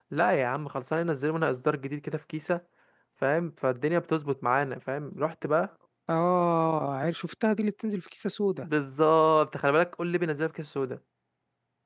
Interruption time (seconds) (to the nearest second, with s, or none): none